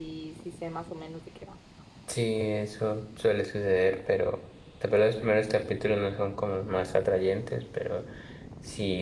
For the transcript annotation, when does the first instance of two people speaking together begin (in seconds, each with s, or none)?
none